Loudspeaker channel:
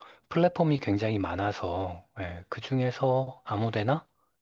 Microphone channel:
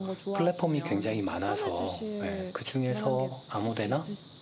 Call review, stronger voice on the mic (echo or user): echo